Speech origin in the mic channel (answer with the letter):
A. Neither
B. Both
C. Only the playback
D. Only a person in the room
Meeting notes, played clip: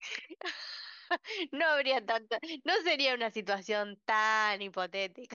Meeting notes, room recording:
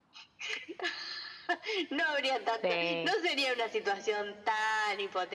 B